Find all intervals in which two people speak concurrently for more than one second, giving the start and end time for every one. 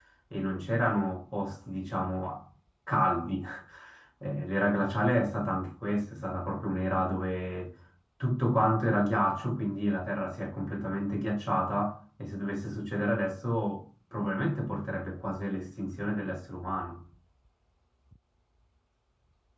none

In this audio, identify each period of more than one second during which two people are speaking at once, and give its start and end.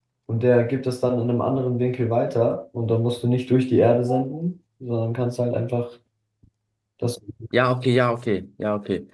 none

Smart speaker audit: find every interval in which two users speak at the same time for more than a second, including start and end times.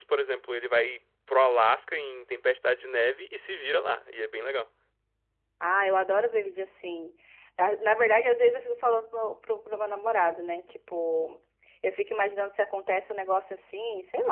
none

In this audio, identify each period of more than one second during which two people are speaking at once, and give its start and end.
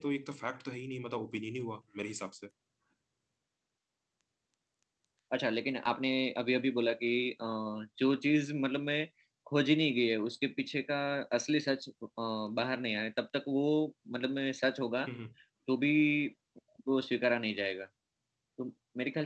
none

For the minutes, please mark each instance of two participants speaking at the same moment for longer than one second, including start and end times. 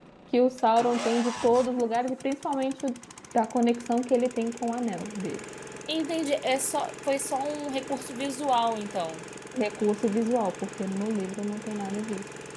none

